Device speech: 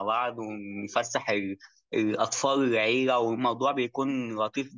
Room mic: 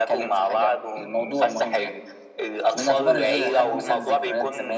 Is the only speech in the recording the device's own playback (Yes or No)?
No